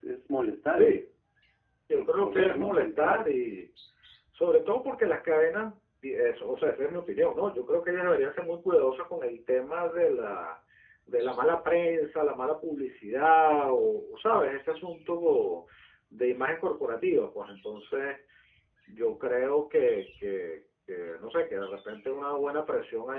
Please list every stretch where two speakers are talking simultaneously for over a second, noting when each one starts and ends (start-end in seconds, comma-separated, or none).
1.9-3.3